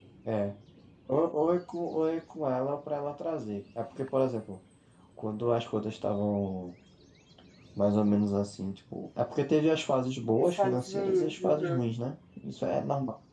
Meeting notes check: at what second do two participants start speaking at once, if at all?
10.4 s

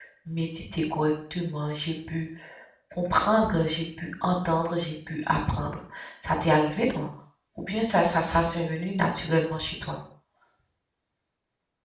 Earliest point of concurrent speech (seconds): none

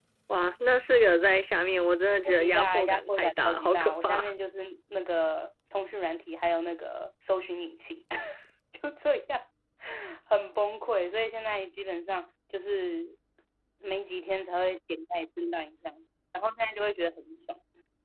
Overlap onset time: 2.2 s

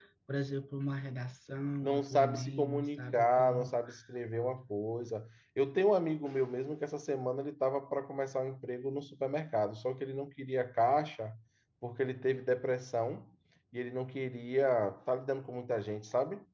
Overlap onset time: 1.8 s

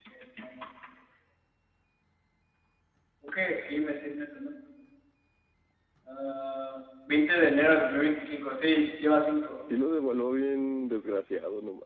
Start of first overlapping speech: none

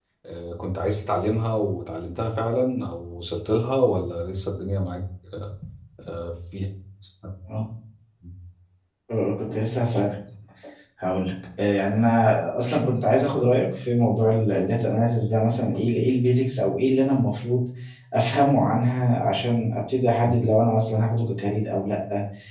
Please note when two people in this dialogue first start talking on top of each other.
none

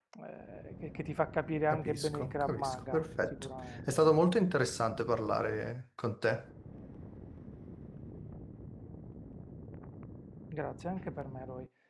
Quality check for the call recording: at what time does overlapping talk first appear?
1.7 s

